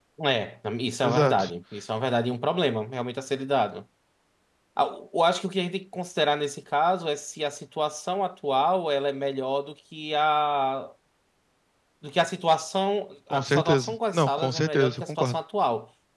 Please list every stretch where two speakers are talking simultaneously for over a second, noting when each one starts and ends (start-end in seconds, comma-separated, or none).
13.3-15.4